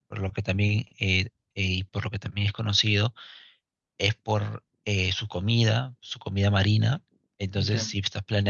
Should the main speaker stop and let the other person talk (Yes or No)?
No